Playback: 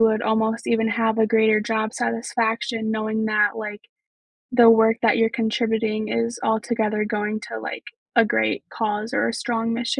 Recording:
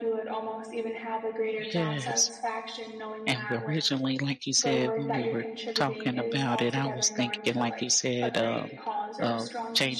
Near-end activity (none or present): present